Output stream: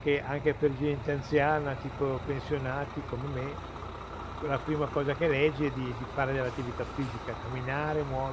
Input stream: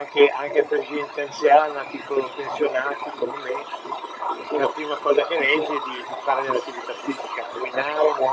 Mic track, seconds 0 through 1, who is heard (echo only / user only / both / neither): echo only